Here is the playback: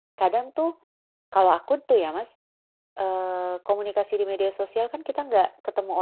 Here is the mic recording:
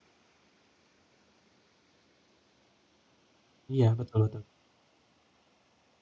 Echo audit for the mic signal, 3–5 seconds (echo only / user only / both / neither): user only